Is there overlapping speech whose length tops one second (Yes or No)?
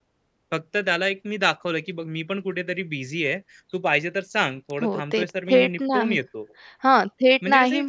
Yes